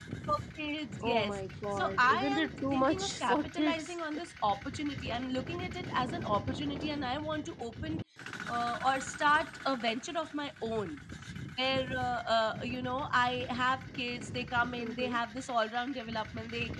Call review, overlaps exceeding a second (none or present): present